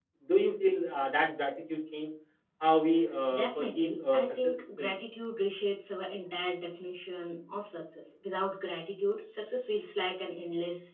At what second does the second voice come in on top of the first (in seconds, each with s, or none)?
3.3 s